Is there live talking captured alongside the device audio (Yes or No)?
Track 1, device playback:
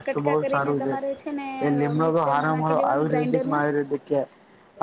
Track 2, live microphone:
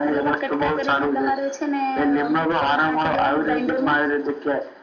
No